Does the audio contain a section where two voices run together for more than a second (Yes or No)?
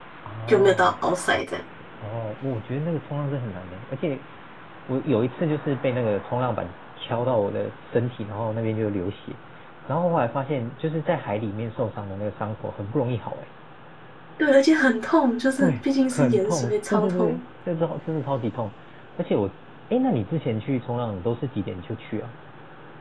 Yes